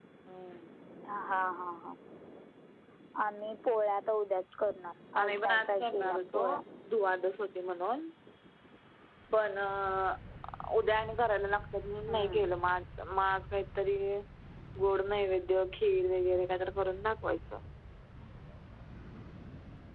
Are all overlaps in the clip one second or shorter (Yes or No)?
No